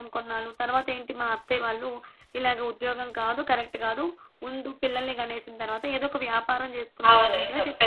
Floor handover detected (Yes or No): Yes